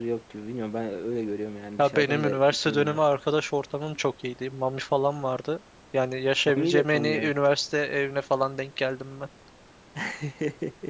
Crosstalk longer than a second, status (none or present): present